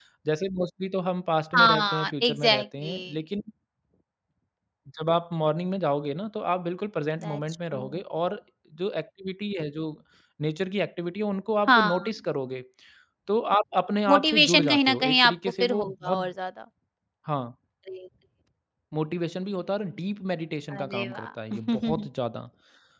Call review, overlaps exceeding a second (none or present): present